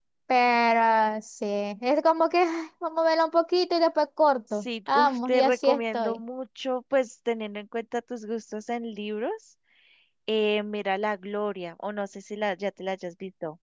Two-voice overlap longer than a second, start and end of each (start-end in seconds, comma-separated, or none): 4.5-6.2